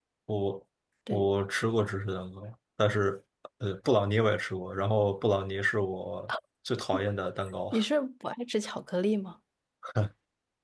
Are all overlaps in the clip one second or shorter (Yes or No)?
Yes